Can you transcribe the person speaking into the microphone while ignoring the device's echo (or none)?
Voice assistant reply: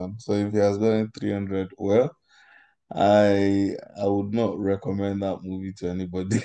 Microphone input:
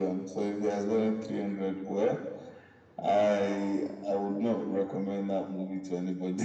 none